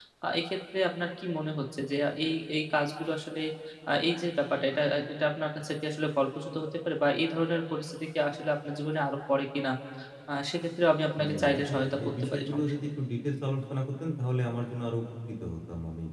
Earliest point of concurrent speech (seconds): 11 s

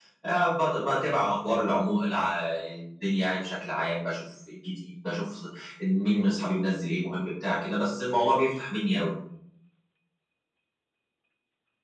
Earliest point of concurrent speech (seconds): none

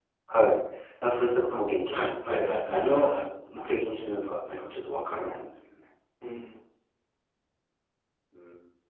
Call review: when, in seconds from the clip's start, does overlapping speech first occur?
2 s

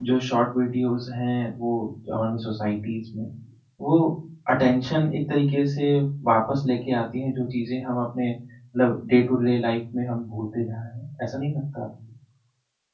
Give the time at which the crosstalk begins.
none

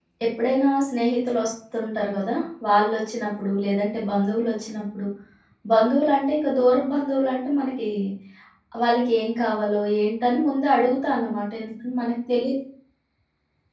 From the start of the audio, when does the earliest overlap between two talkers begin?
none

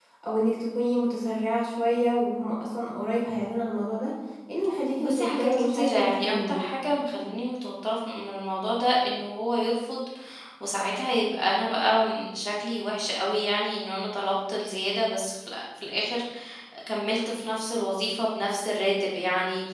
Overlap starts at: 5 s

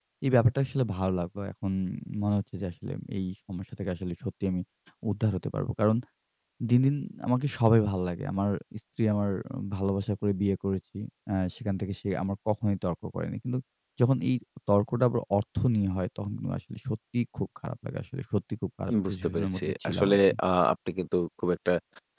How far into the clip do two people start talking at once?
19 s

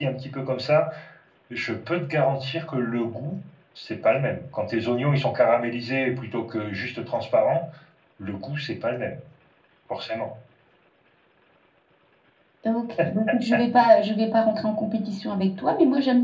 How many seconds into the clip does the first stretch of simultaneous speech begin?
none

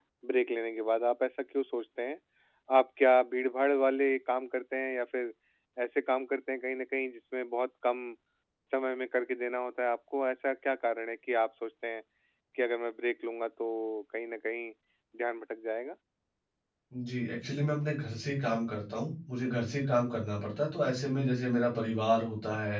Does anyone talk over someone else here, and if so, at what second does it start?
none

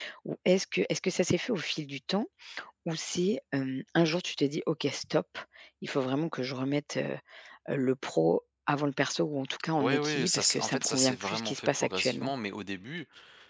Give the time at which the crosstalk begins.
10 s

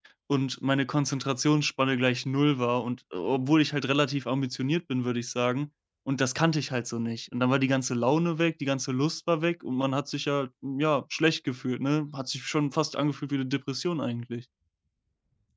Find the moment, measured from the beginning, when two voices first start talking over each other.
none

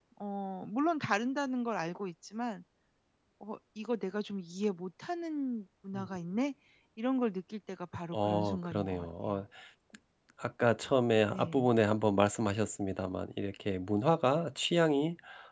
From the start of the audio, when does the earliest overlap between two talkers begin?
8 s

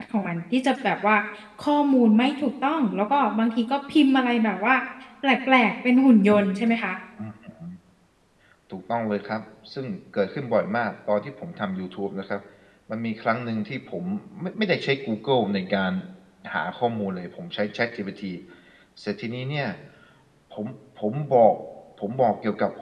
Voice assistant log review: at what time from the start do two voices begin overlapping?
none

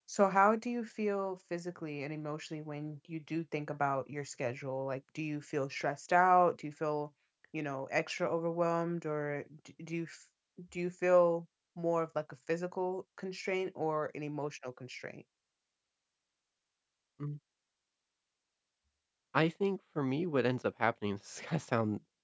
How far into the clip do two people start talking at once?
none

